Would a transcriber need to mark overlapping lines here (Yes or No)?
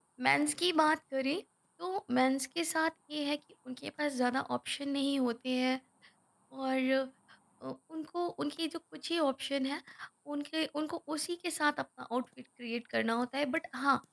No